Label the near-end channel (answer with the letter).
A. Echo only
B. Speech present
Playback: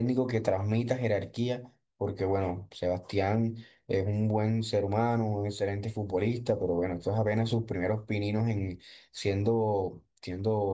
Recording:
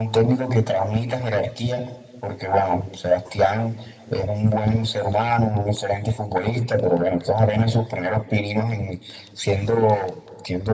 A